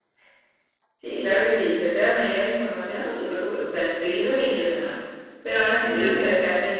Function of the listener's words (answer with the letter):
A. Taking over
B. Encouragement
B